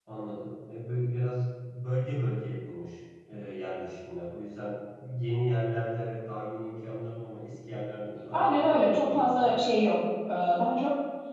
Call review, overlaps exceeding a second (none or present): present